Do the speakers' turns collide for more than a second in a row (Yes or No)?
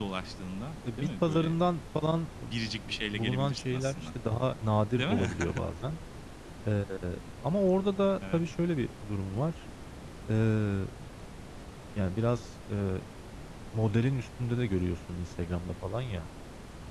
Yes